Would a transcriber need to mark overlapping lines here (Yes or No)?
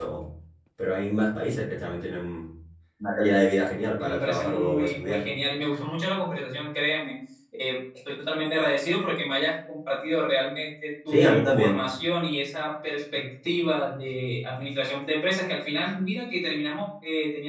Yes